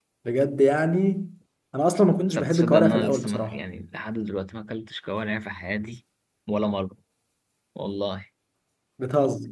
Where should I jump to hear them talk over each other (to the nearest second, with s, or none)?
2 s